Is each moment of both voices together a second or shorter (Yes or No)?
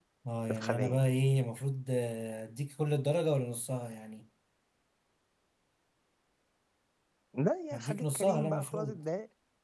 No